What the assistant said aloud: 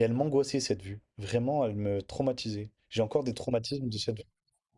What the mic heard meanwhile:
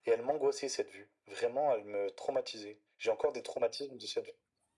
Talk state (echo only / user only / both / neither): echo only